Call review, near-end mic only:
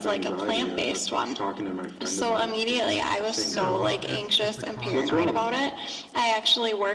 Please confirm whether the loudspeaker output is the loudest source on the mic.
Yes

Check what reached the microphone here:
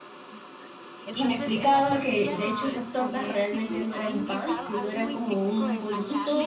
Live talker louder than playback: Yes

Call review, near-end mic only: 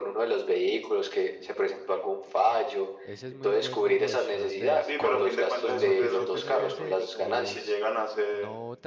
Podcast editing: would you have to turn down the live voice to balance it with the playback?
No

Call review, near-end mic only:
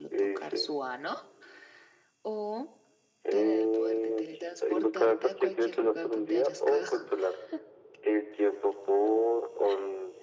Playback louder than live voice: Yes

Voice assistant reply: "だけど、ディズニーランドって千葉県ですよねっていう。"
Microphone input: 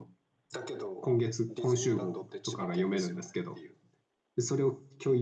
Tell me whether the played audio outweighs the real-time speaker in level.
No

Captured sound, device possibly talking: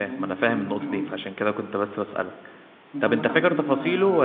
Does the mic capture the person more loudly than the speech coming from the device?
Yes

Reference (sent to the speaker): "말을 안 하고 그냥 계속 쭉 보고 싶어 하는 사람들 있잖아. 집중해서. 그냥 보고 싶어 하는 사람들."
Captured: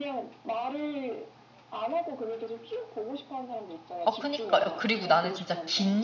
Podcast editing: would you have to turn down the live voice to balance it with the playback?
Yes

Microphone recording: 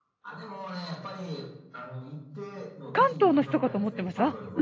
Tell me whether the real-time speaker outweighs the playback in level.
Yes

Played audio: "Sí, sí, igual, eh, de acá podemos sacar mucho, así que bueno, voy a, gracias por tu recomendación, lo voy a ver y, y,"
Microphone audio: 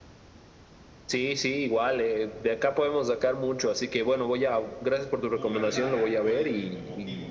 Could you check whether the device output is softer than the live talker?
No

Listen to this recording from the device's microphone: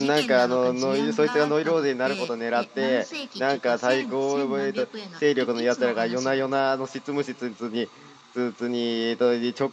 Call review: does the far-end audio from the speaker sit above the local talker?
No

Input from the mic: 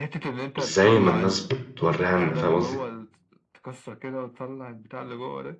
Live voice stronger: Yes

